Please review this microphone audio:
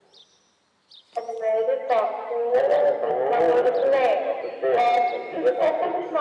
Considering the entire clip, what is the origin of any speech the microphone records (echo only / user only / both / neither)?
echo only